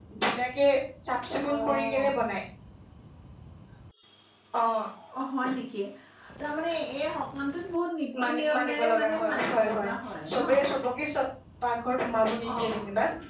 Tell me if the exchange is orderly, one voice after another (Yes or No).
No